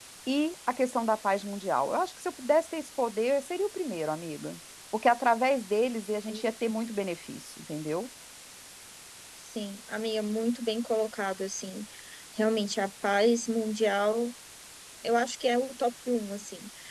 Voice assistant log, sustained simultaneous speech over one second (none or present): none